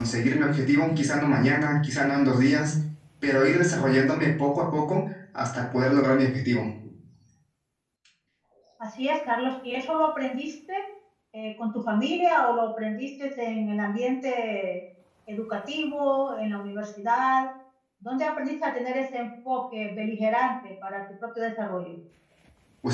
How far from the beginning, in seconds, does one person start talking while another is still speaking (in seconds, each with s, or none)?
none